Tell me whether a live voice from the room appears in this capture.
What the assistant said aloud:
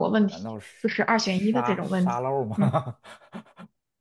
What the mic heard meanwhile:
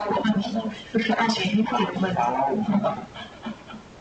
No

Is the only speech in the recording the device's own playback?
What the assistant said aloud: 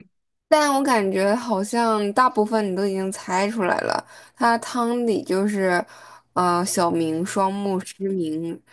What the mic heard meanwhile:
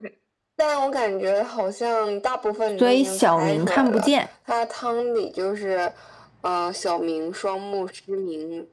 No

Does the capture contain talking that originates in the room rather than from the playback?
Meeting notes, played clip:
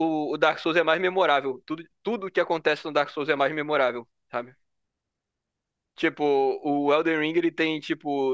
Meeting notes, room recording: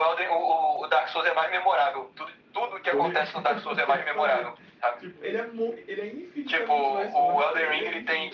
Yes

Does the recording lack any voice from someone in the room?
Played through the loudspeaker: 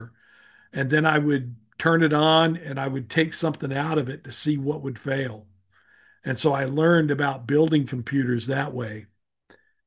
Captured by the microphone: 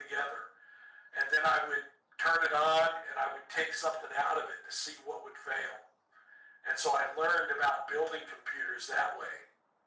Yes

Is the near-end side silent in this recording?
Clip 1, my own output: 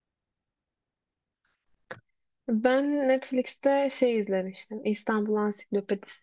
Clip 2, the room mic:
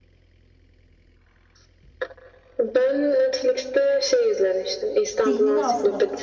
No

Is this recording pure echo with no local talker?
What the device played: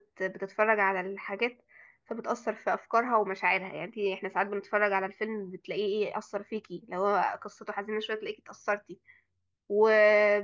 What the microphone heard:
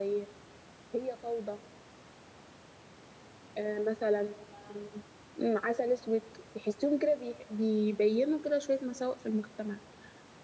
No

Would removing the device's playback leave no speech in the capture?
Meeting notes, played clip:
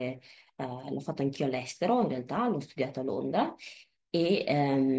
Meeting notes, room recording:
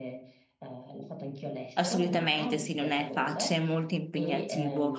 No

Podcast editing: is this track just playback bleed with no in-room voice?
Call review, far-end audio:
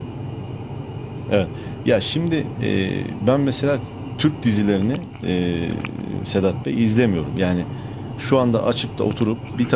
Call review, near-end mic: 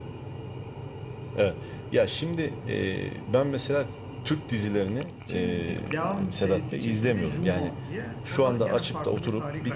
No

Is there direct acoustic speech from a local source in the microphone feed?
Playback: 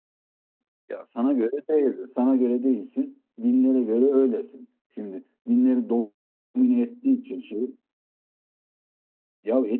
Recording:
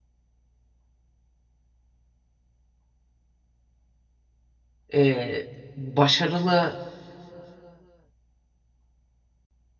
Yes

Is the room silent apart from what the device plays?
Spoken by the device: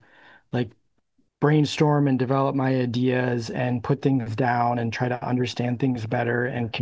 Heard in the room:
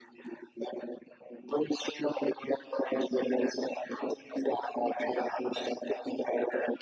Yes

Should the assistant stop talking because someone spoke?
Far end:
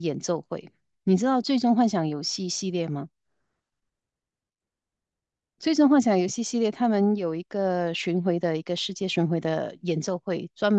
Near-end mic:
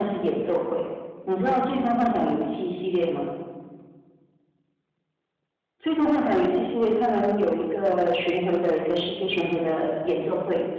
No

